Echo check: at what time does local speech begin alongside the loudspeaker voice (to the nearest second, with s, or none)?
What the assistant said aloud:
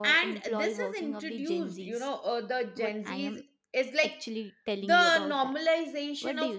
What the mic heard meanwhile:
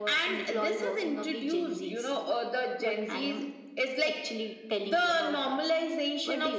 none